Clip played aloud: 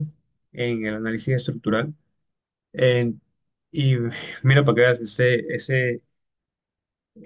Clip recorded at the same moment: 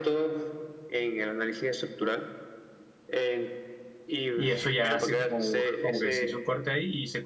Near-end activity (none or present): present